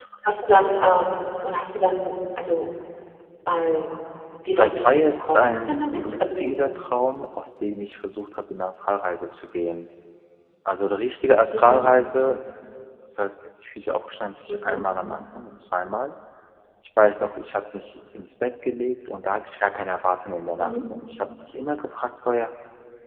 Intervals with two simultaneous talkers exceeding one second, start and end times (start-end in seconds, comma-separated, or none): 4.6-6.4